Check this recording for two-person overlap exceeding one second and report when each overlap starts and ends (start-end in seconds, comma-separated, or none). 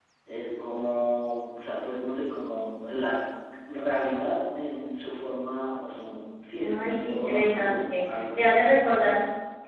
6.6-8.5